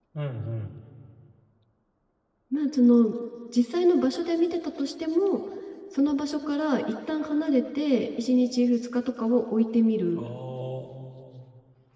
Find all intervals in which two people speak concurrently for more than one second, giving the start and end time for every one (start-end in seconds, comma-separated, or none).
none